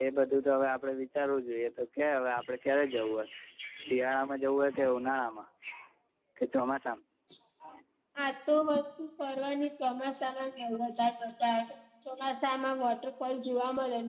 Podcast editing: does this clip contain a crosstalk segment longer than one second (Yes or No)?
No